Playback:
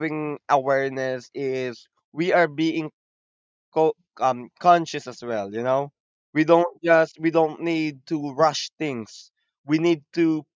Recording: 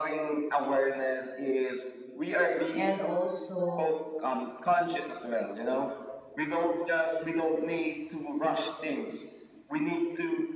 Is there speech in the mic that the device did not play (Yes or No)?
Yes